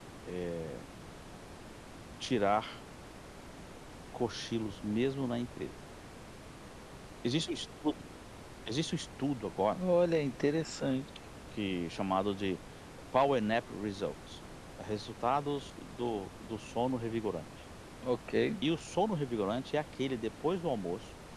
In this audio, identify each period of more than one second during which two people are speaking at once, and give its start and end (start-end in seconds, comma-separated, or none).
none